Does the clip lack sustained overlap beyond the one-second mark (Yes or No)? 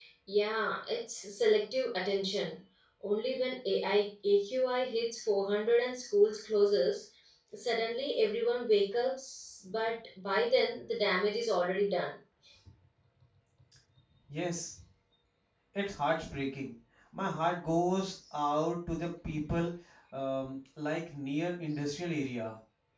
Yes